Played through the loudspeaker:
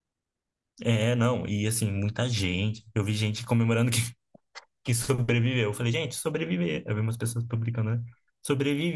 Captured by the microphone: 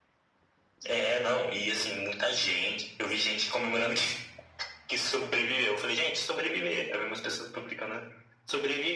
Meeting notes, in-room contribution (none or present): none